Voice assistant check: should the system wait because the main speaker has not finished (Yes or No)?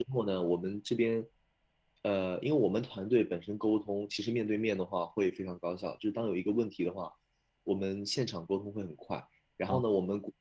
Yes